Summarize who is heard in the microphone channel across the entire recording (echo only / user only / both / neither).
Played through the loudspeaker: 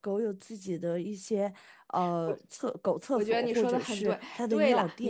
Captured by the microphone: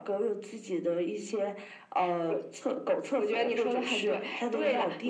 echo only